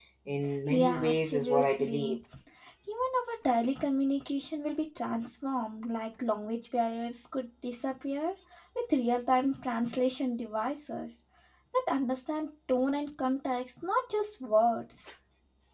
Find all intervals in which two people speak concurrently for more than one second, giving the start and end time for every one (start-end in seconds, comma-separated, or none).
0.7-2.2